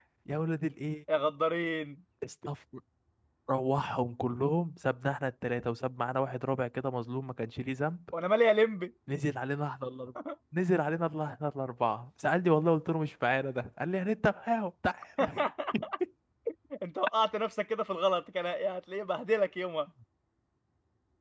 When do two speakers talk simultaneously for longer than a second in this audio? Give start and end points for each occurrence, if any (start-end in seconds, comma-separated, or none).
none